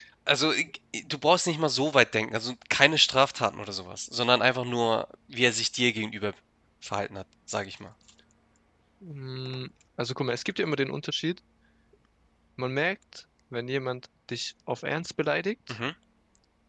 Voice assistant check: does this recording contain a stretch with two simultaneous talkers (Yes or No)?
No